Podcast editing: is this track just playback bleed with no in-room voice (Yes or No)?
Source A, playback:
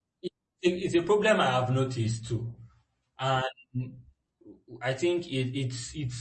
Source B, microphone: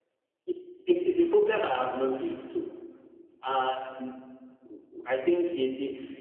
Yes